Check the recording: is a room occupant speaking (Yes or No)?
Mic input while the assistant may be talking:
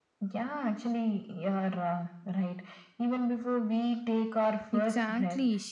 Yes